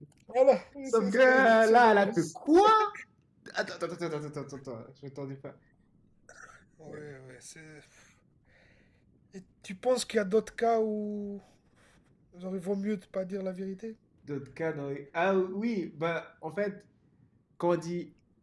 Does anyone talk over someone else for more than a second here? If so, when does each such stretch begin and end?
0.9-2.3

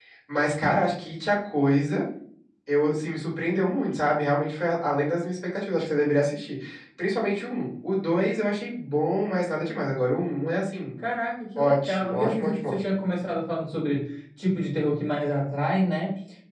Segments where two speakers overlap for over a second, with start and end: 11.6-12.8

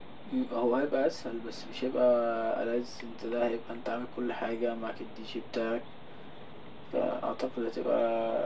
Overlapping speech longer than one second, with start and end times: none

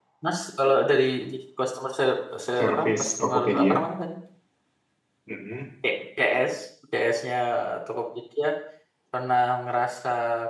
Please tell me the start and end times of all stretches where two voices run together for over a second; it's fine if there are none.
2.6-3.8

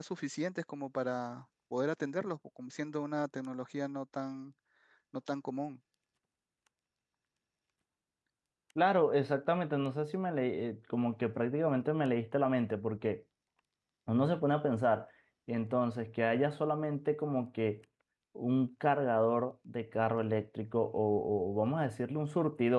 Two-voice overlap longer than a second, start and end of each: none

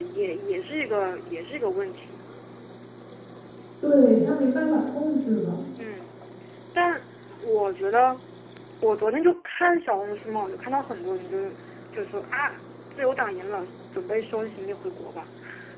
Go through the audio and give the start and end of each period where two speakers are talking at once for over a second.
none

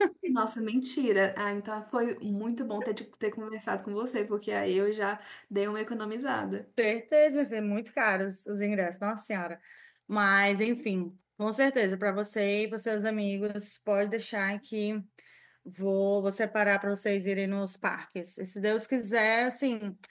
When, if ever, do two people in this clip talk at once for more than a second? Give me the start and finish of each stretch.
none

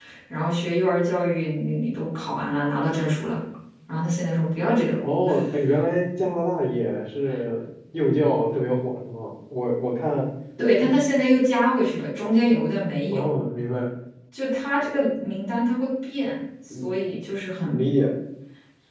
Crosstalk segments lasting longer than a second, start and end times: none

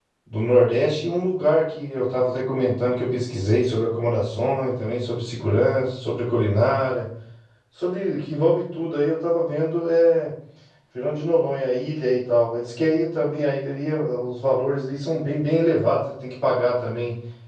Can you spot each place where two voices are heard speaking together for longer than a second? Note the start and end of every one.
none

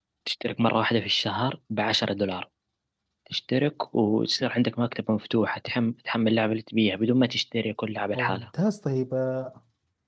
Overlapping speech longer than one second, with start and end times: none

